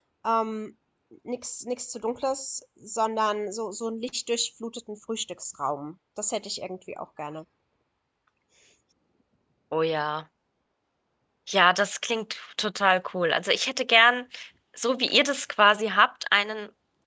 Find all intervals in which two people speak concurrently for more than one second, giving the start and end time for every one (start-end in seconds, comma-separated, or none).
none